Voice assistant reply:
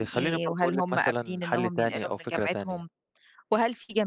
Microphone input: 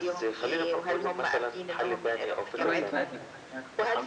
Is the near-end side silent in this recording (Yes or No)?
No